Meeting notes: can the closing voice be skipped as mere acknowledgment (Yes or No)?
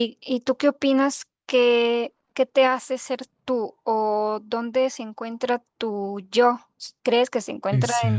Yes